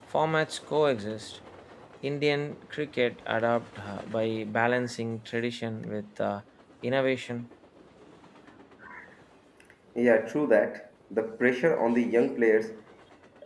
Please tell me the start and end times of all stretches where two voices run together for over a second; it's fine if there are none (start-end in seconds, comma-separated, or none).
none